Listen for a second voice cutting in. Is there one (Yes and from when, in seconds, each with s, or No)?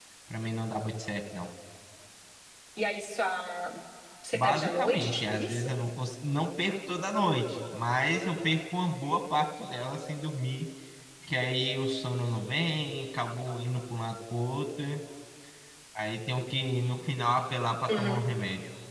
Yes, from 4.3 s